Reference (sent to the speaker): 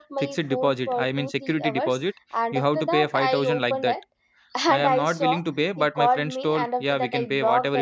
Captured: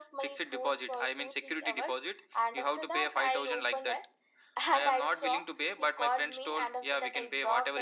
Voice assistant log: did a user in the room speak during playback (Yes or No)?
No